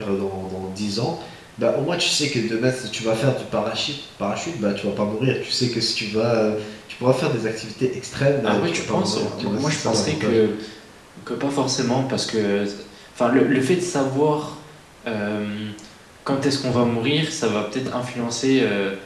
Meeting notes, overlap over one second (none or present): present